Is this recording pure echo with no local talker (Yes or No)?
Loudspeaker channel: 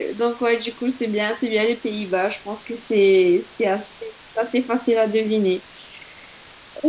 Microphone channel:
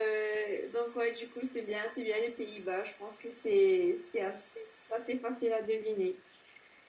Yes